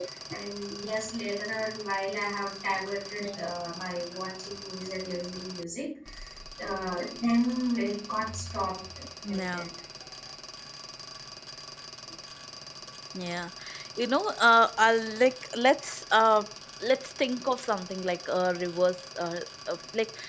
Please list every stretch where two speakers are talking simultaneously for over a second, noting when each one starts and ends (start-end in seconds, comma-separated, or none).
none